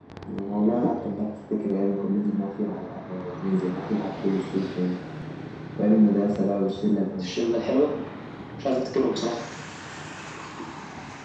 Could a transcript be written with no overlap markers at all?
Yes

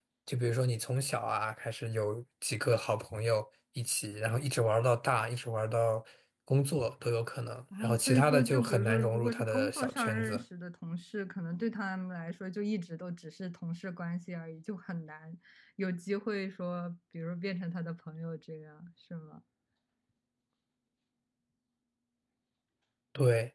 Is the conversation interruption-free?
No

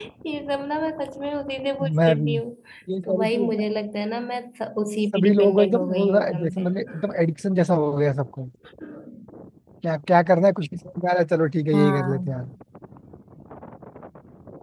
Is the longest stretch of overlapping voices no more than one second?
No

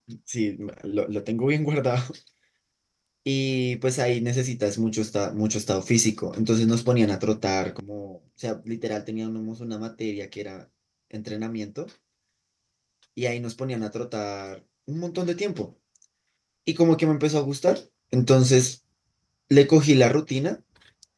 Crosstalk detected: No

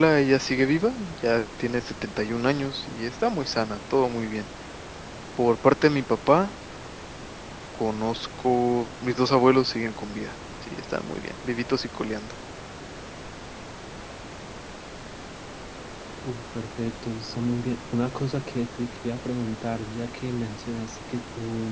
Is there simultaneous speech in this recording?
No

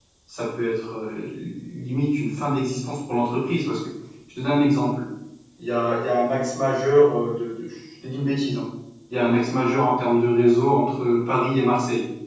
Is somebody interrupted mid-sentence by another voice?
No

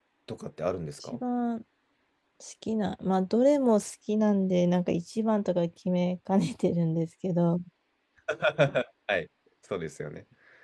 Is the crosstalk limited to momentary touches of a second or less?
Yes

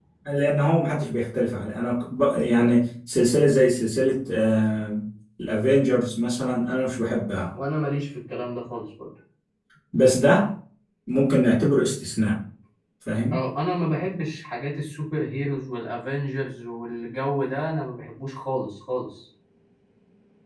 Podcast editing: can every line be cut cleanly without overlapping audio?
Yes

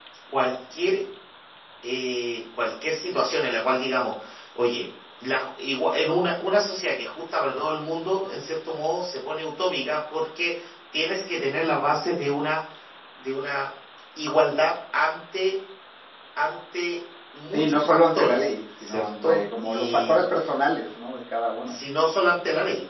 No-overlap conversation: No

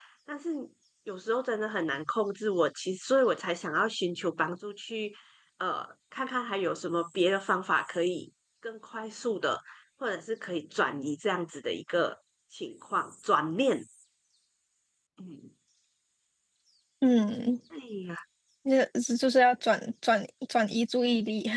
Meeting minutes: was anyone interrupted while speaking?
No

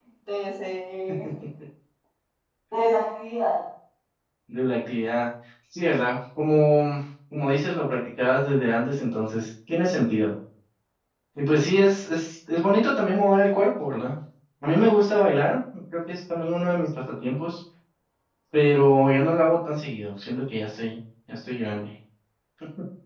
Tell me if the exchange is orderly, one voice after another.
Yes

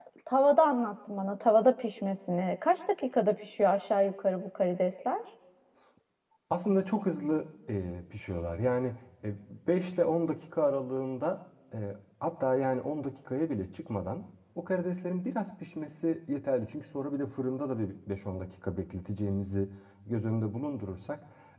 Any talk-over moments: No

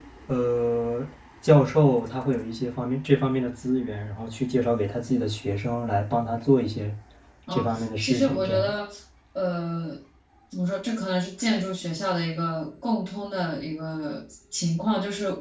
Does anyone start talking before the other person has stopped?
Yes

